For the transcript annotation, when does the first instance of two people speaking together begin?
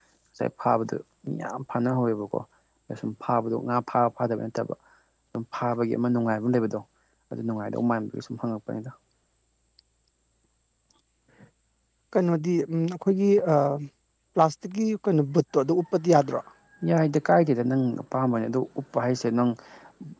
none

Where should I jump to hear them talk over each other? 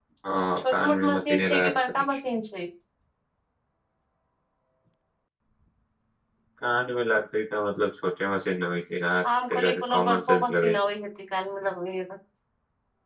0.6 s

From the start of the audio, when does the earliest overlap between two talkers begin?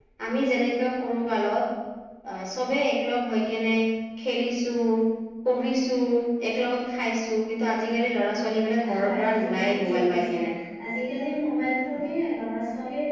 8.8 s

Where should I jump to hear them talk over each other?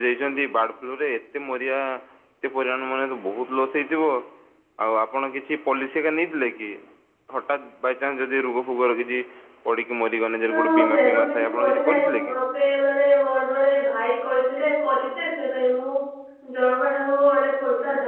10.5 s

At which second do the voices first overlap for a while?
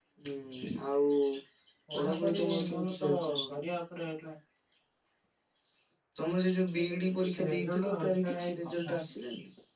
1.9 s

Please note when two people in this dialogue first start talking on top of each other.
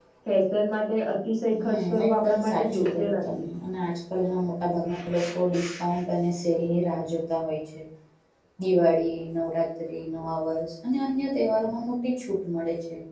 1.6 s

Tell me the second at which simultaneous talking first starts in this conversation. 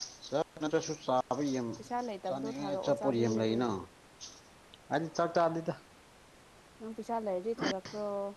2.3 s

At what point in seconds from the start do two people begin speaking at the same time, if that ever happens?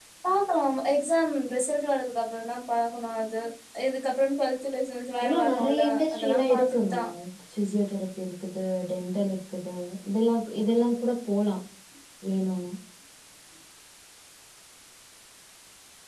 5.2 s

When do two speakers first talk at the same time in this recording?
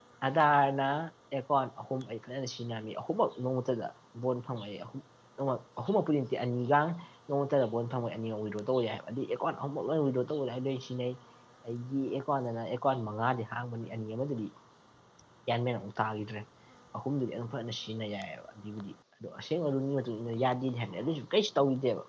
none

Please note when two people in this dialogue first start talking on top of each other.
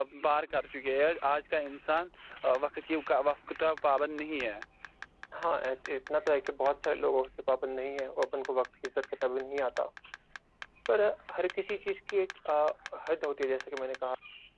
none

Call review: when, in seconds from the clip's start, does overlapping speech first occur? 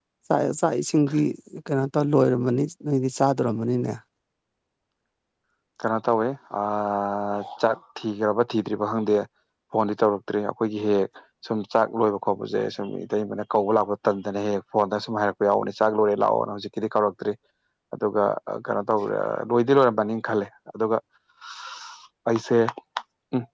none

